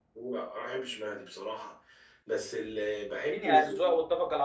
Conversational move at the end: taking over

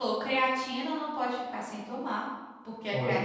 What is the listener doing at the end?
listening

